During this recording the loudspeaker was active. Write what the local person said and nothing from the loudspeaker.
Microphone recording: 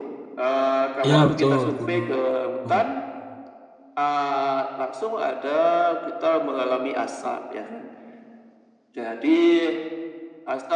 Iya, betul, gunung.

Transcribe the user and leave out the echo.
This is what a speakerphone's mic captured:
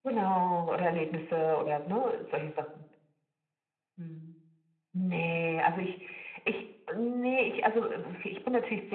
none

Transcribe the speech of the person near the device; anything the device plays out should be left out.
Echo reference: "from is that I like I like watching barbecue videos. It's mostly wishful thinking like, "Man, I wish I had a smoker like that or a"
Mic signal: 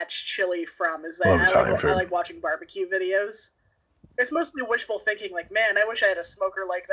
I love Italian food.

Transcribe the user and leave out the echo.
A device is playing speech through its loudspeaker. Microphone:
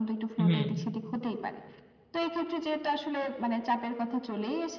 হুম।

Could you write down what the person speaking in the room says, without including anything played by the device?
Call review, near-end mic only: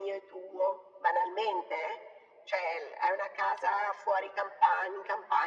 none

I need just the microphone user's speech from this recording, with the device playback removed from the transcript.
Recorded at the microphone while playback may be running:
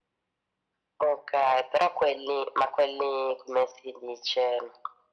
none

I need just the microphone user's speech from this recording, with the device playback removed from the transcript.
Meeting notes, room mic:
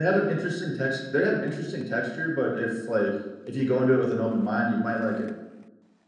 none

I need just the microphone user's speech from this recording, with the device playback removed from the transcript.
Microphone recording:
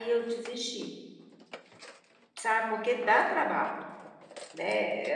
none

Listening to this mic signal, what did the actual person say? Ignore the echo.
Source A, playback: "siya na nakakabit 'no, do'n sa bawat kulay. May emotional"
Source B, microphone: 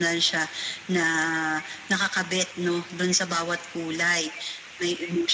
none

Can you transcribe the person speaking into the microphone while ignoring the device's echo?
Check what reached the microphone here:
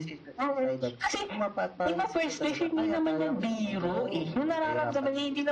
Oo.

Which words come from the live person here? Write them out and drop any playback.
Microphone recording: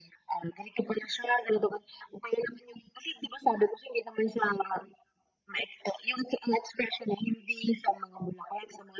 none

